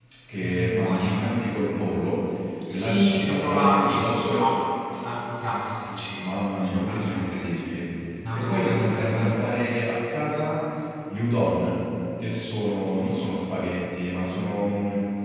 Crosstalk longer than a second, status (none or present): present